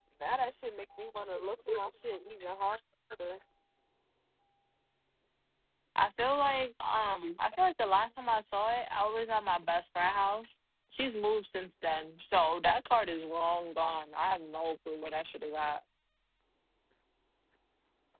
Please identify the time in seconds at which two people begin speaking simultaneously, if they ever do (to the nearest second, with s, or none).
none